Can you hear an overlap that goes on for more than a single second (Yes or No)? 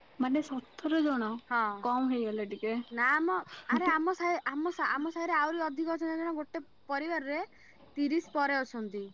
No